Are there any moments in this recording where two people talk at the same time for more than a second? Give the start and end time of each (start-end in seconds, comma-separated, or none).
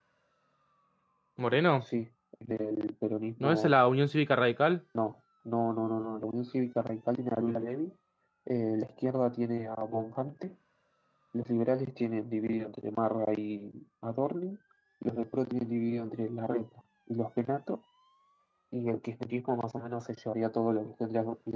none